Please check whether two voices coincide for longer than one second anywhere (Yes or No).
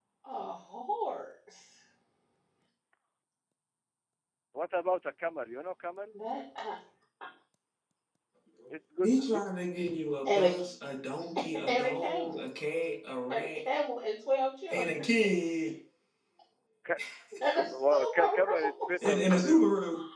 Yes